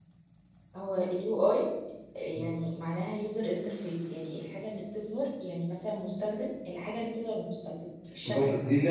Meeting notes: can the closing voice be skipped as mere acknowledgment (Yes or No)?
No